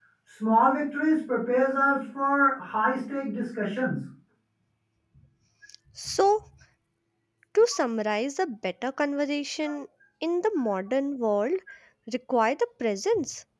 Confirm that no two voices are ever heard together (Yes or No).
Yes